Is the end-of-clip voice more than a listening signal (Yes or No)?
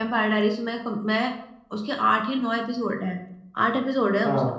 No